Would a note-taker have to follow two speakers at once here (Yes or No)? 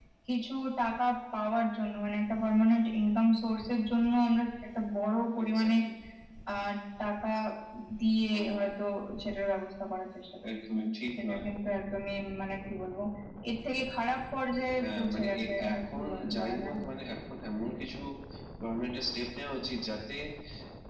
Yes